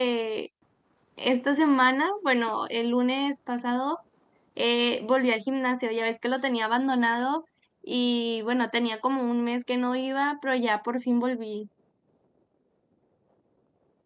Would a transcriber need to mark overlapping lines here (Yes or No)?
No